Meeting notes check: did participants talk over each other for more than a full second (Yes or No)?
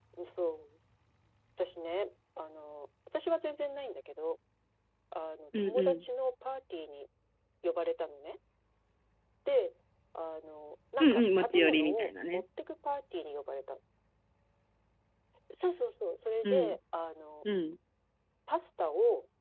Yes